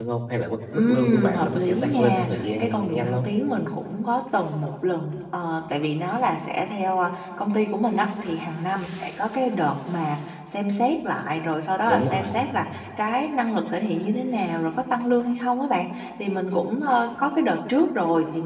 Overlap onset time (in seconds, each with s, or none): 0.7 s